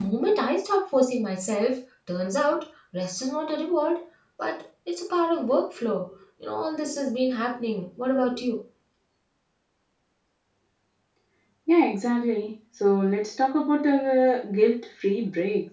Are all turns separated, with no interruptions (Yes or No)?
Yes